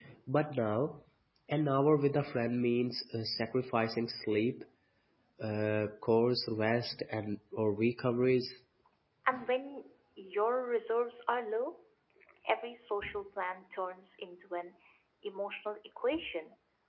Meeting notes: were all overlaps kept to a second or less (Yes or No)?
Yes